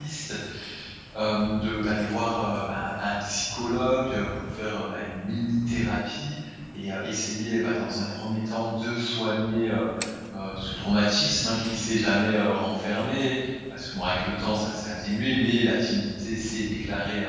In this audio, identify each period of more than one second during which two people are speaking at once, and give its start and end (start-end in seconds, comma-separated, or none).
none